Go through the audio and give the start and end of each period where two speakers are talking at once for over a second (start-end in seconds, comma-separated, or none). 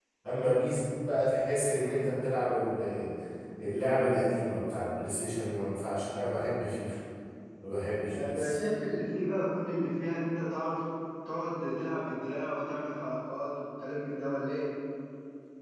none